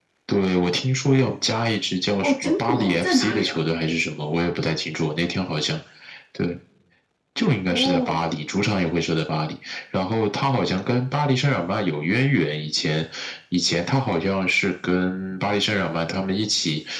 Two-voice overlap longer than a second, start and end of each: 2.2-3.6

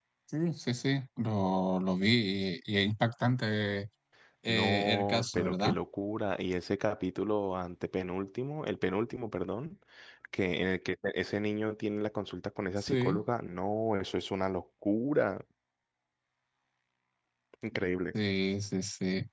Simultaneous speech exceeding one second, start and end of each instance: 4.5-5.7

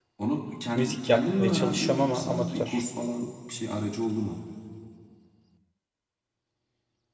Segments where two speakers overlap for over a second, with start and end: 0.8-2.8

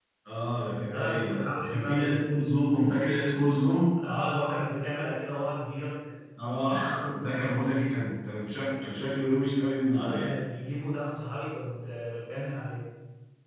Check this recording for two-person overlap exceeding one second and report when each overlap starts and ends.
0.8-2.1

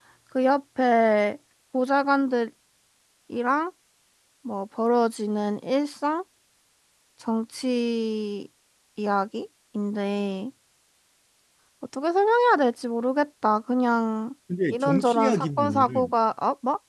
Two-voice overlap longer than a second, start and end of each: 14.7-16.1

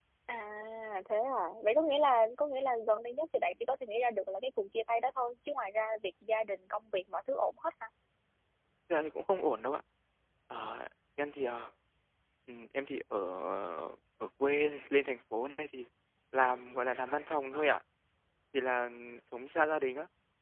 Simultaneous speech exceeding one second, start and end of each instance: none

